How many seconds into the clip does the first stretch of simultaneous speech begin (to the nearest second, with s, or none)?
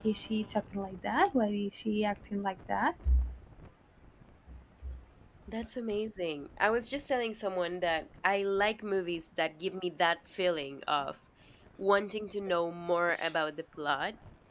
none